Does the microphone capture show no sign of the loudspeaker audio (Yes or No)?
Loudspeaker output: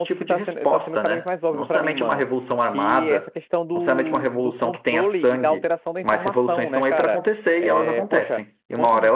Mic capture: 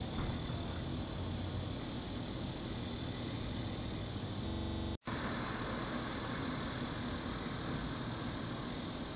Yes